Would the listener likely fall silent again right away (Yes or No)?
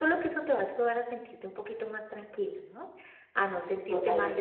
Yes